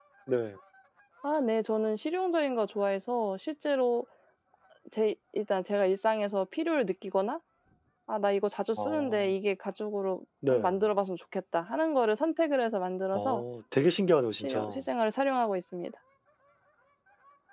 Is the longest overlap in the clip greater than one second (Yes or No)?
No